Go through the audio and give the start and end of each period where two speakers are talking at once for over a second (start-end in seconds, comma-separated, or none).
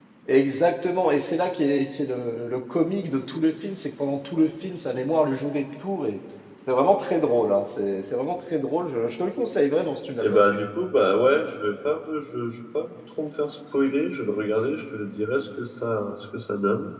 none